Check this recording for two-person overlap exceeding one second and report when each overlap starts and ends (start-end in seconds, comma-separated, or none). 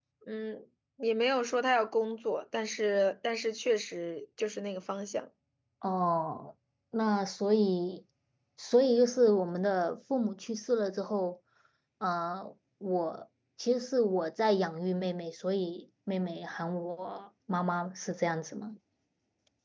none